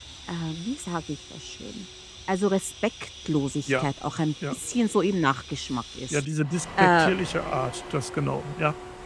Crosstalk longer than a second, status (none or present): none